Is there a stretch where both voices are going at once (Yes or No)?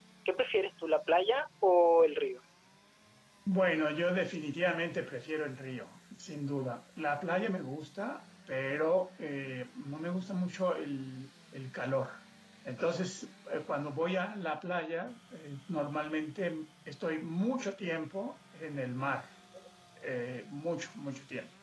No